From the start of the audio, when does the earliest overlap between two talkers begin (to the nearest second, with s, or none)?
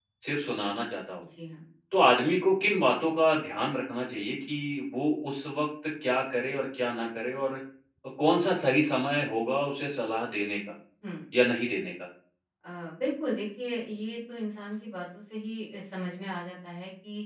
none